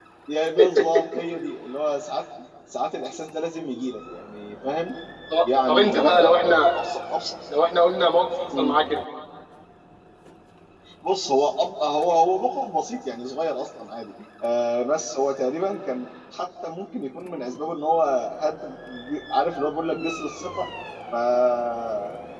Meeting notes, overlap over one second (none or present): present